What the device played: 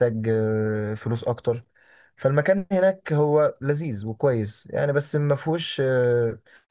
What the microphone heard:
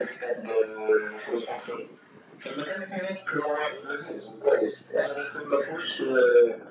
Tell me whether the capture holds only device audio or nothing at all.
Yes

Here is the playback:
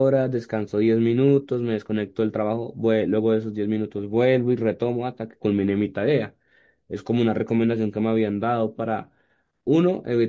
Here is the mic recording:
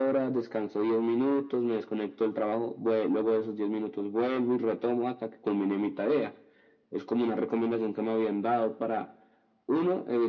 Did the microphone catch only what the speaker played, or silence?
Yes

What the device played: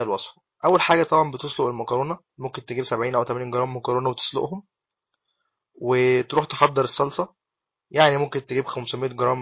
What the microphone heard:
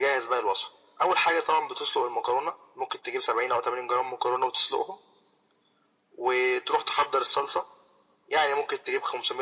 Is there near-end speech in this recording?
No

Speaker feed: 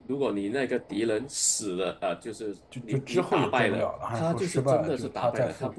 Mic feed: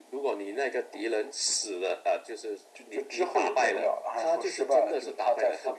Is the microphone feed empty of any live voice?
Yes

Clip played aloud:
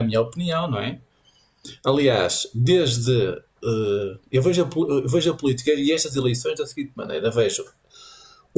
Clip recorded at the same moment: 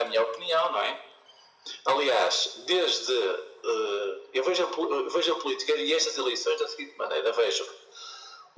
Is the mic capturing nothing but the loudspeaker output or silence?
Yes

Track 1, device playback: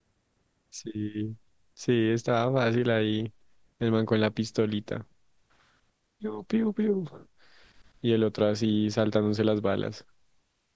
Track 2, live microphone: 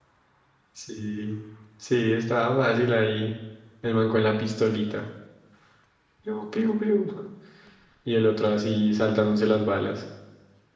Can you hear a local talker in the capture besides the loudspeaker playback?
No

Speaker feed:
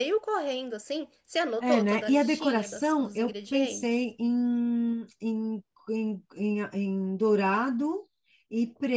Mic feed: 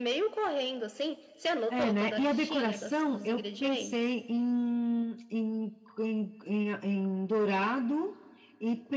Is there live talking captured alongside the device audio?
No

